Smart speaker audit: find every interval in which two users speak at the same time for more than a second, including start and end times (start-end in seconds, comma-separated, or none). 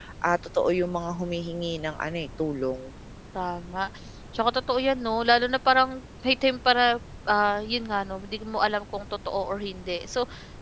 none